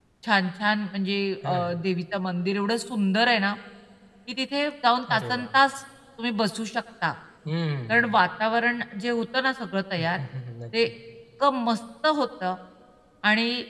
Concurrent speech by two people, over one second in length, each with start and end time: none

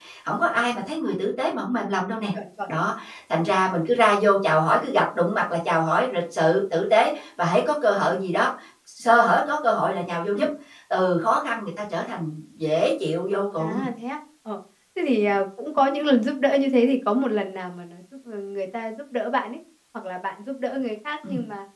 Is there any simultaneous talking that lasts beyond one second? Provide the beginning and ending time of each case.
none

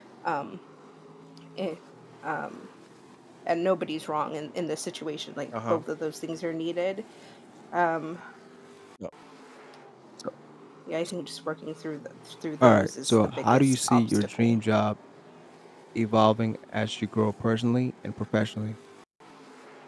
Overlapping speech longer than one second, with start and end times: 12.6-14.6

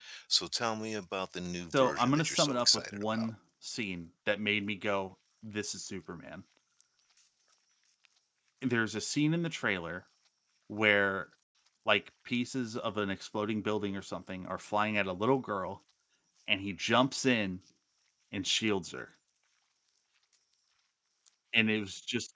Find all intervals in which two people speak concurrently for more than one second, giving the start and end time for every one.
1.8-3.3

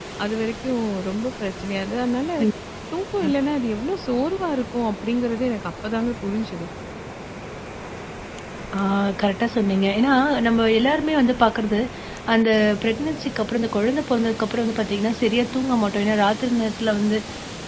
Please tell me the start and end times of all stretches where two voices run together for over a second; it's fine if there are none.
none

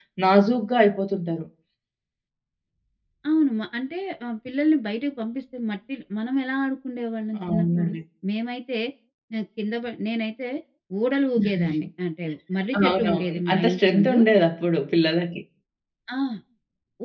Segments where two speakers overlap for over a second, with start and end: 12.9-14.2

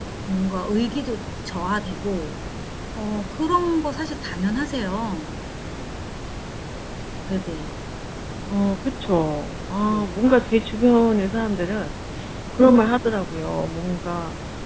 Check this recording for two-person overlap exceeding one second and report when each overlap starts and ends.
none

